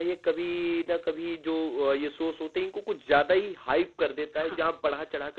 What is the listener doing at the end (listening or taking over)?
listening